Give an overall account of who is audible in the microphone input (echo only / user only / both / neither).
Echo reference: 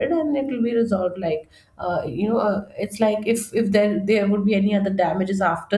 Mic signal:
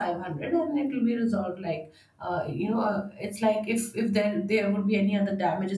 echo only